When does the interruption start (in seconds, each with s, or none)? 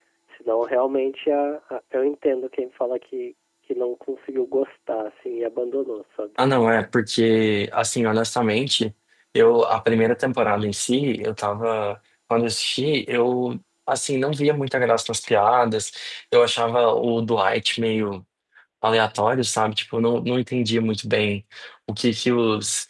none